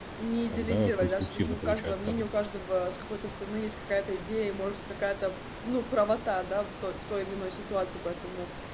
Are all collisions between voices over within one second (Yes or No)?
No